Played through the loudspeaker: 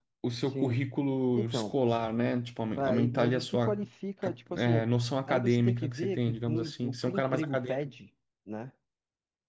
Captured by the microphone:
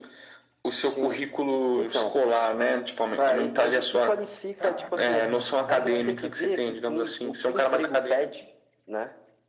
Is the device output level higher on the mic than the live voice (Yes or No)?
Yes